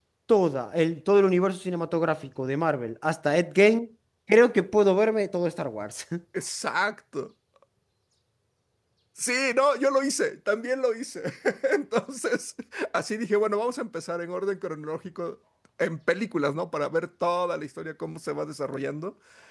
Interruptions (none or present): none